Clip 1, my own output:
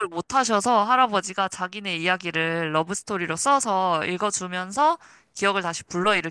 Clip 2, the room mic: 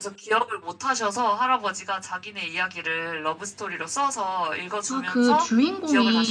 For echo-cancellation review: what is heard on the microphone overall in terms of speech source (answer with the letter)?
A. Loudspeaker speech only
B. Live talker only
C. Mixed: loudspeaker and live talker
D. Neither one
C